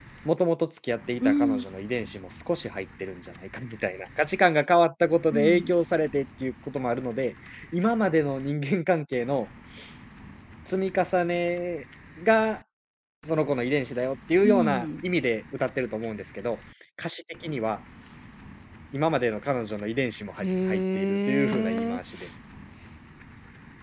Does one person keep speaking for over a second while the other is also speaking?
Yes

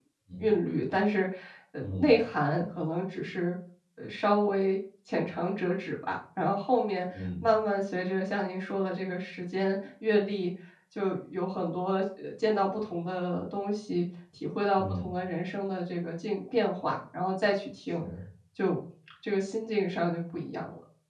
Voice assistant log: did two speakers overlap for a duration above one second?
No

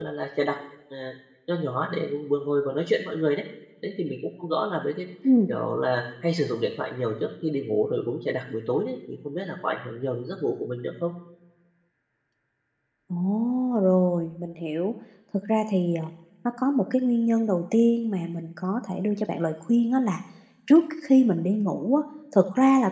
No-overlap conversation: Yes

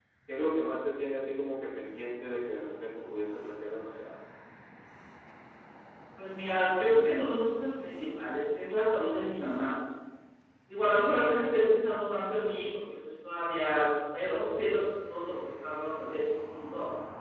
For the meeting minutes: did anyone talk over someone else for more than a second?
No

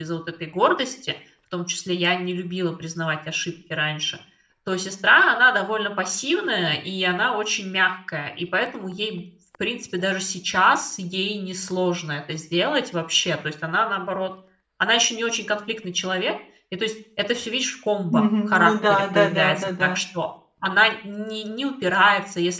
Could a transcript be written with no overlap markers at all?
No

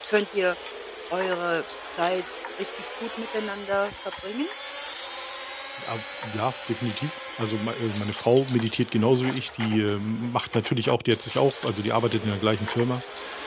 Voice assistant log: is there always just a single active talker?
Yes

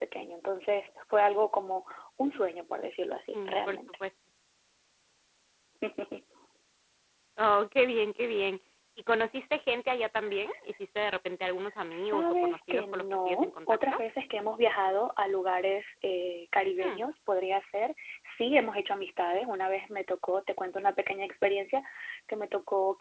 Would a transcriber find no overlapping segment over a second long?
No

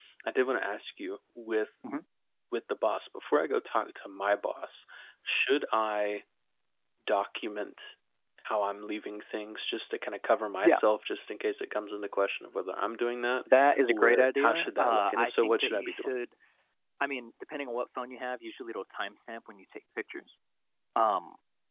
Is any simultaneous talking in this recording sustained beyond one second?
Yes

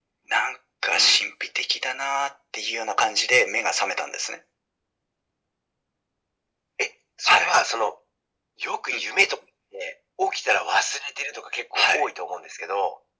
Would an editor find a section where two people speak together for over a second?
No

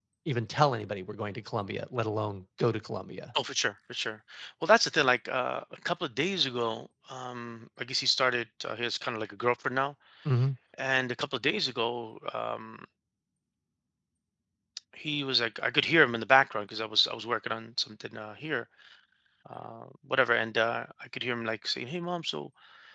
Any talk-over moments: No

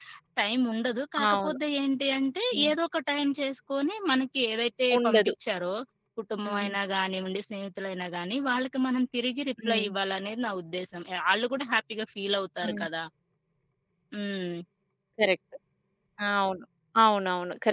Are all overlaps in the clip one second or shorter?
Yes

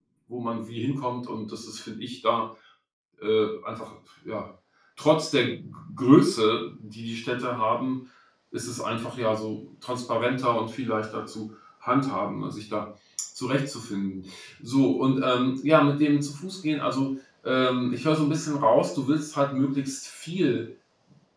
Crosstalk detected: No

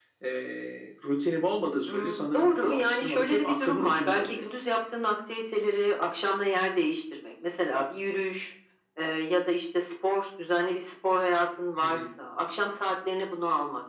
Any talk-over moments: Yes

